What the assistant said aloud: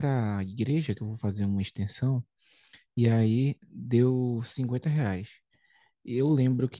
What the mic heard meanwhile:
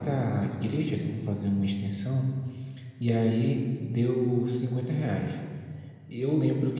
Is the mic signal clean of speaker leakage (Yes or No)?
No